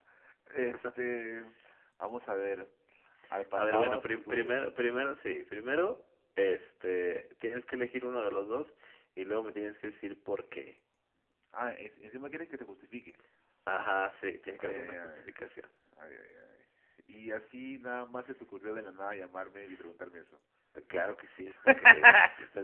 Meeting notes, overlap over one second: present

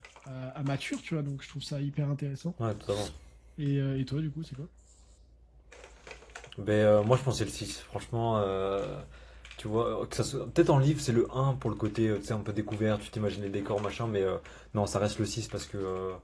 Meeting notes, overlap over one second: none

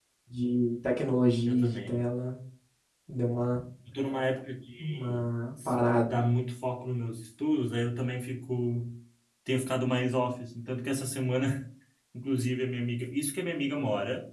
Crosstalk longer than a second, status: none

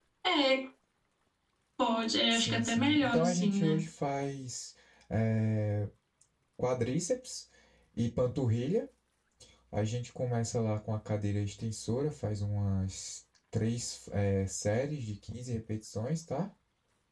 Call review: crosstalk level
present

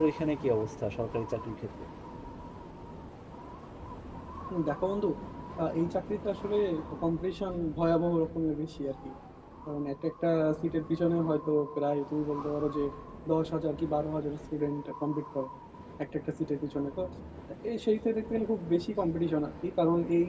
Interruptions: none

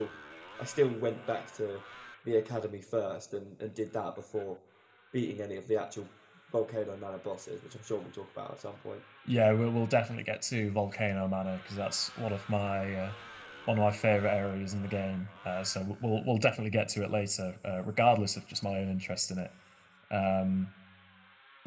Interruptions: none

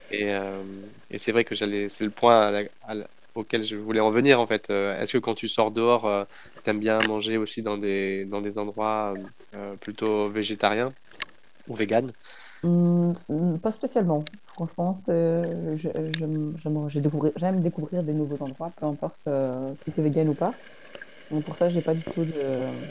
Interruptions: none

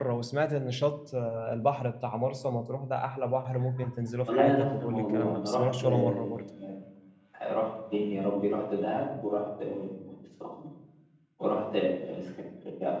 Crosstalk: present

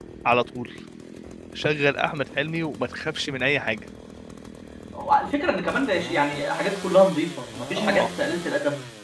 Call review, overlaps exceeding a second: none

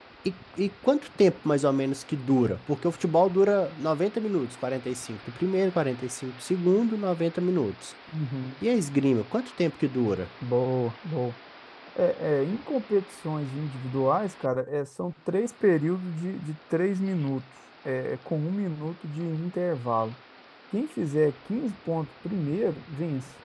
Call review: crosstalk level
none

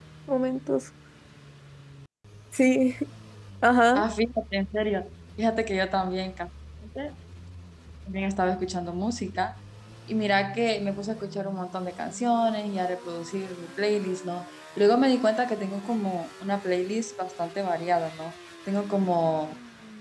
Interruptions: none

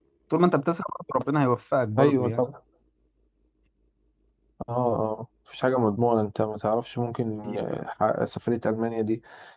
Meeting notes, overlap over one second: none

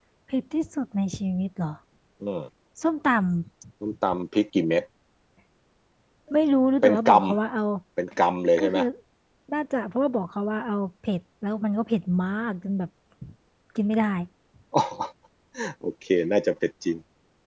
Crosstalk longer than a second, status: none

